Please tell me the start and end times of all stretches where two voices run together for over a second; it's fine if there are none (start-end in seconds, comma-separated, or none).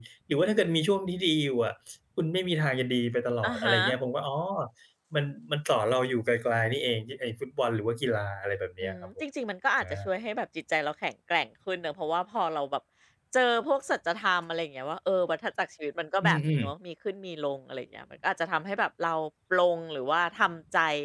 none